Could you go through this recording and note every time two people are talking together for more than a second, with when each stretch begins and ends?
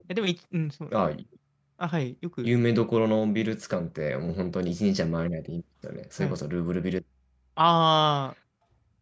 none

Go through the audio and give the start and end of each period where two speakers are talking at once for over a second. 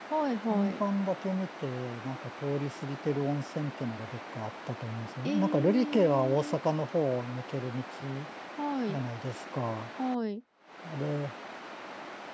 5.2-6.6

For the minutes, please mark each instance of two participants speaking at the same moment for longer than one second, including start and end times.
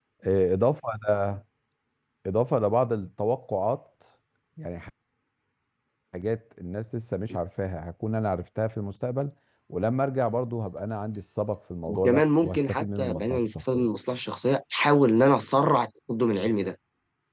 11.9-13.9

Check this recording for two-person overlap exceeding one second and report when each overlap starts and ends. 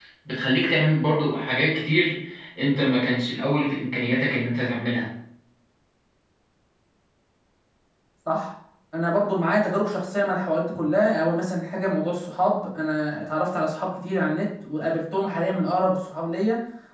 none

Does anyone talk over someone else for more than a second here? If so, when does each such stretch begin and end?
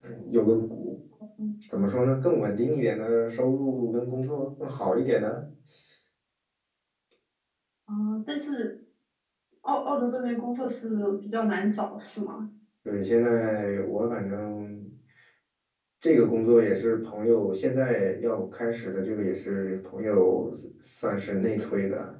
none

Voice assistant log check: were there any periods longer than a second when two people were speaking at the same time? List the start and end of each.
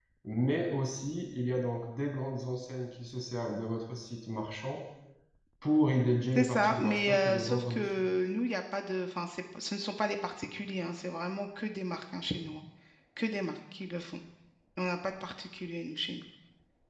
6.3-8.0

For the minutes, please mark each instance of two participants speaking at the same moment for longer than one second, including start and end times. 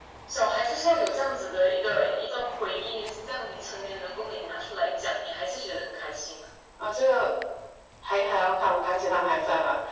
none

